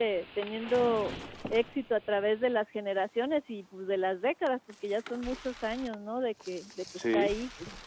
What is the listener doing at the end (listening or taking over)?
taking over